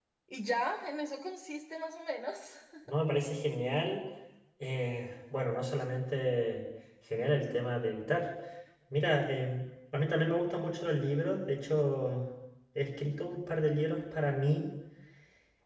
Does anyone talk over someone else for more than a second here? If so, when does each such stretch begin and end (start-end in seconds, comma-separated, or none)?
none